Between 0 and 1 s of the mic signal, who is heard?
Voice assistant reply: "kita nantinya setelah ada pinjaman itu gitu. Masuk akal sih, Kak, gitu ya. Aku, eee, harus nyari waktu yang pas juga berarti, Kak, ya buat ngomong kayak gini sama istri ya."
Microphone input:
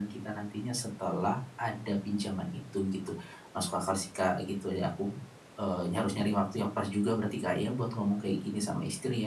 echo only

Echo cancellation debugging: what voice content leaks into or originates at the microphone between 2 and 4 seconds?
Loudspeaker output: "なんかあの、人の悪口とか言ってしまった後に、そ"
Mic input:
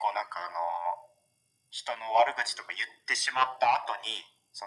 echo only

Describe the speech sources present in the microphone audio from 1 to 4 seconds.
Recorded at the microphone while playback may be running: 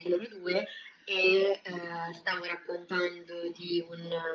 echo only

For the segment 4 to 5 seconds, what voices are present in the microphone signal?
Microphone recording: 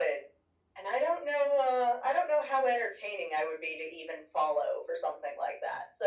echo only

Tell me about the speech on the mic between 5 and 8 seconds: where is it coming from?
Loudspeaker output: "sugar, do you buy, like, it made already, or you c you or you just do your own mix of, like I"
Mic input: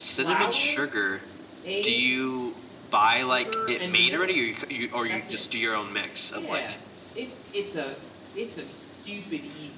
both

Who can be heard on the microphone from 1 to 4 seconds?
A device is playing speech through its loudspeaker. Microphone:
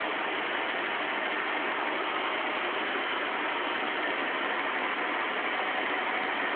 neither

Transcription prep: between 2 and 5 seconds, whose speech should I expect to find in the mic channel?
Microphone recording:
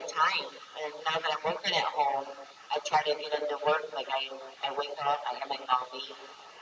echo only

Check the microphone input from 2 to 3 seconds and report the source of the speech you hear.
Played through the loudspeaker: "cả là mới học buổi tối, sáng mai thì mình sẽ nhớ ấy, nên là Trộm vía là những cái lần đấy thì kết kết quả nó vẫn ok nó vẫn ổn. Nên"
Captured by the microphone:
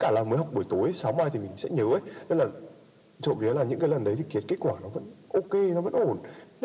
echo only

